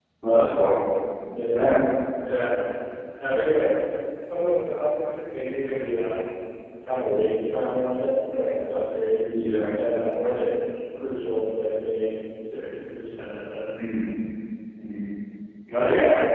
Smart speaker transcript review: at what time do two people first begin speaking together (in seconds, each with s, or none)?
none